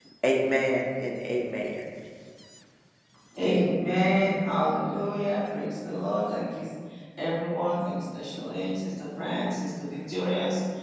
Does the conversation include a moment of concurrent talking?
No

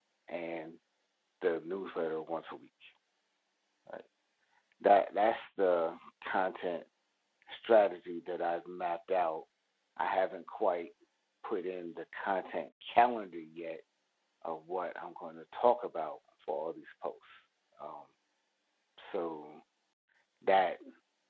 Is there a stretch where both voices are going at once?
No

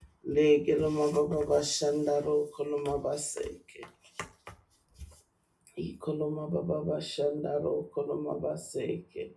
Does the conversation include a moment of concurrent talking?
No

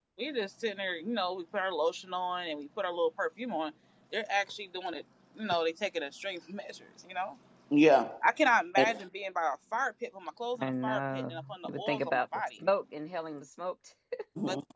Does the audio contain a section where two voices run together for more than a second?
Yes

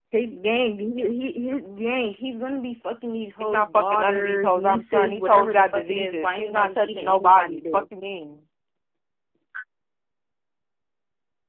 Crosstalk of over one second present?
Yes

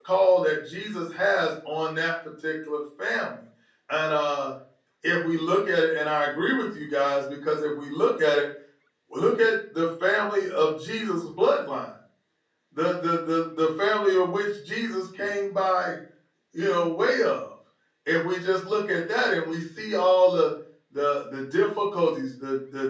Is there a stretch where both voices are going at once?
No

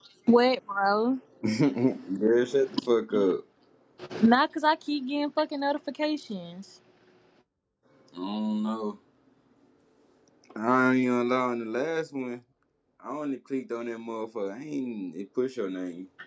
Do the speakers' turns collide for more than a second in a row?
No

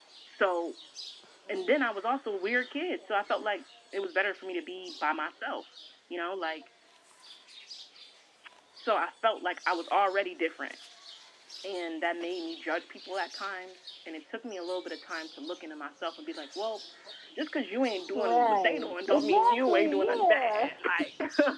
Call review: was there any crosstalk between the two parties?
Yes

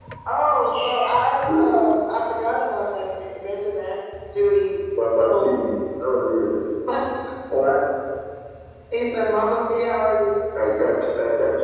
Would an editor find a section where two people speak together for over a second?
No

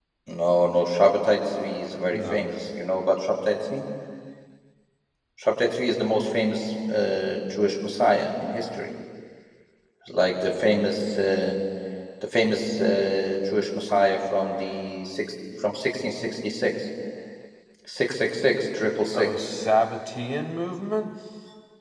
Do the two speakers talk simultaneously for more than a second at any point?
No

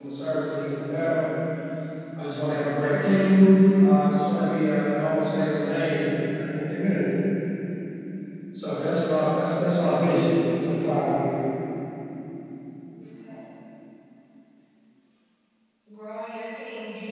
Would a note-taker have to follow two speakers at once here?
No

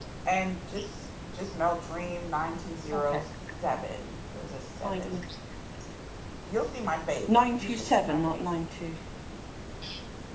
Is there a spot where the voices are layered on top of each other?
Yes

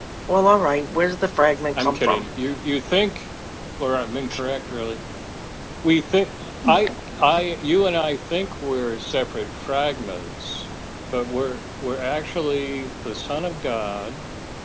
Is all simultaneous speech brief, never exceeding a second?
Yes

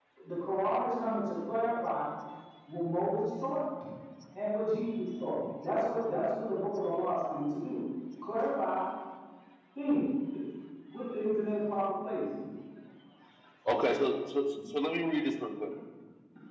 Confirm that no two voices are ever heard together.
Yes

